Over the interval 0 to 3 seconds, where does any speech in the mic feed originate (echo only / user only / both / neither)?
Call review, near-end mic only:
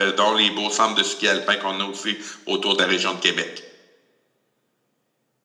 echo only